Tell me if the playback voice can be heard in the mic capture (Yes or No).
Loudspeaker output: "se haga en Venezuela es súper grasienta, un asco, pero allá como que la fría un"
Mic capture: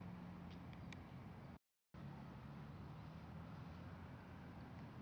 No